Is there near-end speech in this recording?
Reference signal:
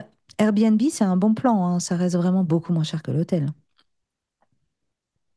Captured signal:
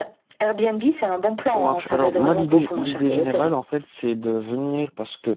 Yes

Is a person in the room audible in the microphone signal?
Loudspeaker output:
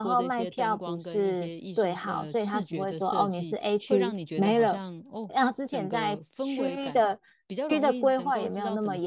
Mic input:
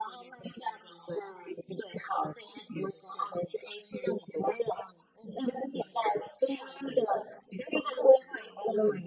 No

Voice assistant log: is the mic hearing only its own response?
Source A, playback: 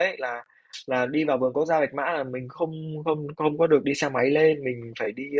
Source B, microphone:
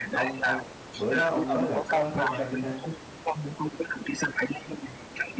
No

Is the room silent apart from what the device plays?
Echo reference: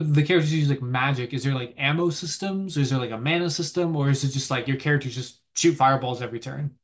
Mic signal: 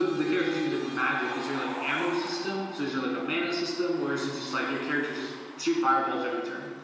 Yes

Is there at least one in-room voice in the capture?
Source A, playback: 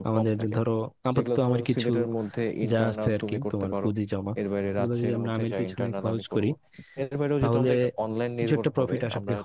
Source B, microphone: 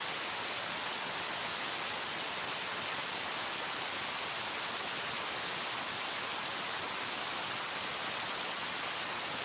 No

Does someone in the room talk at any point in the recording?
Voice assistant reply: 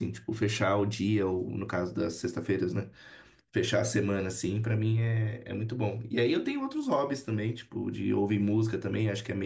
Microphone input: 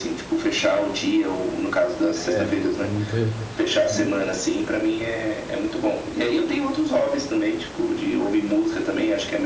Yes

